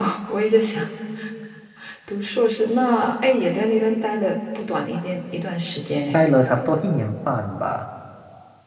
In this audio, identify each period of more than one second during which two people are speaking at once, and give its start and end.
none

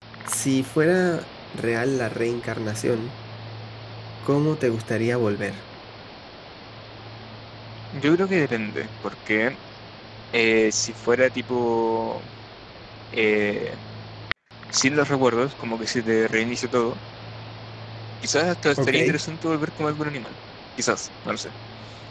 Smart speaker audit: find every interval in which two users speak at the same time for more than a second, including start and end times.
none

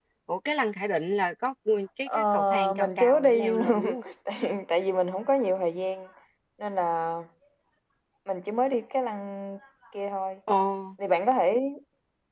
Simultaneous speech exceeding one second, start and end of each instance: 2.1-3.8

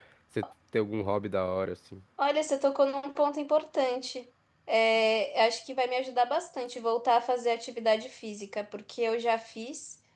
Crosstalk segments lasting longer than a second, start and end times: none

